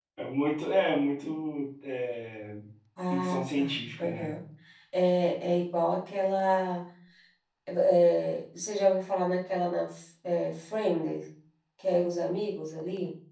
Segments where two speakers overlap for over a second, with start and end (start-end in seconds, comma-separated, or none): 3.1-4.3